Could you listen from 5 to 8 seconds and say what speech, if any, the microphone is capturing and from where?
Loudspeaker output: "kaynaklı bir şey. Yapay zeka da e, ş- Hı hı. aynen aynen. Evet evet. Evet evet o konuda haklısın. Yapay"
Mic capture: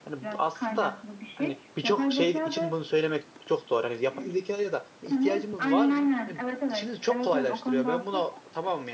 both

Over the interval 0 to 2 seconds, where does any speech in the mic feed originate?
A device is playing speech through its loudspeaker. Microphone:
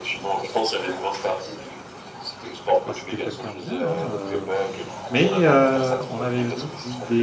echo only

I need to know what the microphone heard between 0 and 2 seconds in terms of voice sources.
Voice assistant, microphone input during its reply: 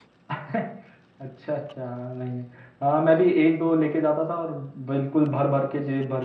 user only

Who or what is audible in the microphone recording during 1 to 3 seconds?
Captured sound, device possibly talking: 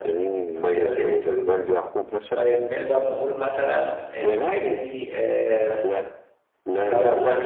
both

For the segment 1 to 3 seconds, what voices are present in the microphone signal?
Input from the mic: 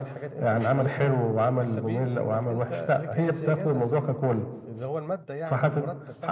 both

